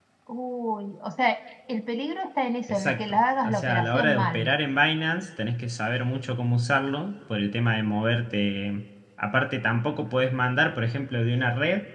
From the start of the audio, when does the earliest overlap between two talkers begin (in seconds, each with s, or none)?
2.7 s